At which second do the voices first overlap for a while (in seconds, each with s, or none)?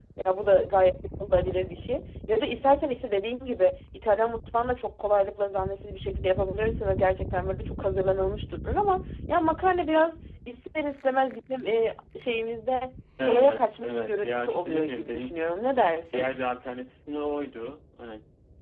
13.2 s